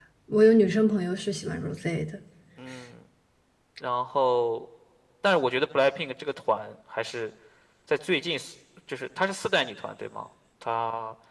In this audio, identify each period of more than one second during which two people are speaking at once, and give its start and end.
none

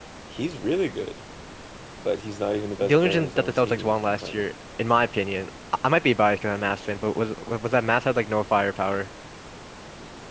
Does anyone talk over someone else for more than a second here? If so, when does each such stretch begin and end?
2.8-4.4

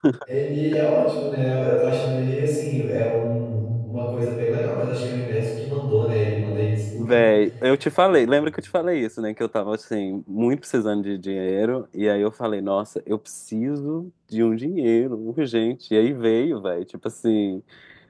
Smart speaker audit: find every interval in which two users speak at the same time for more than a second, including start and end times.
none

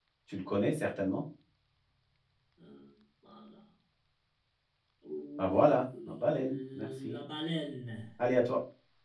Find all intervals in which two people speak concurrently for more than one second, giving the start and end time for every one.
5.4-7.1

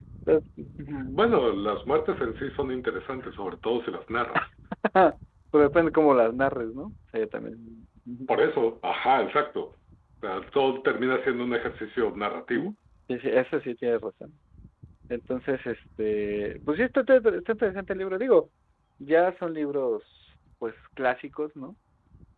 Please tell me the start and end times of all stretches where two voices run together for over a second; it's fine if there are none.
none

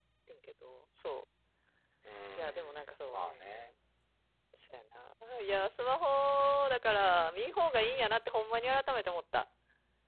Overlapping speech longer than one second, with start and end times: 2.4-3.7

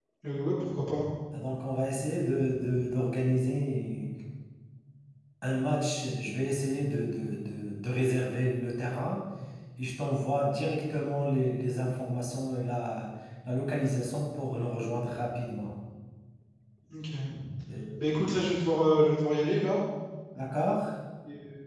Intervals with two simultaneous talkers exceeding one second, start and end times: none

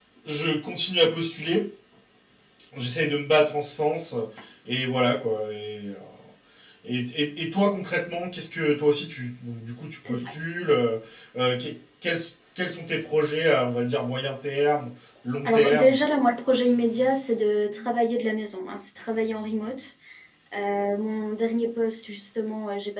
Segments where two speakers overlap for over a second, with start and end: none

